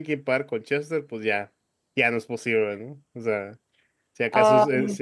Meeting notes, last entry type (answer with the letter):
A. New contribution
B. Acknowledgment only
B